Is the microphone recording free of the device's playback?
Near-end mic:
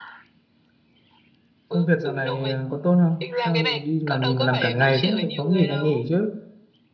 No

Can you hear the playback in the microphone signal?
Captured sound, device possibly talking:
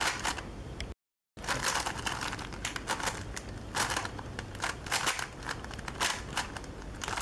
No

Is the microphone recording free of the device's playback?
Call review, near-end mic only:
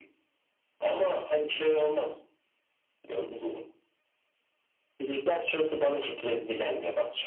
No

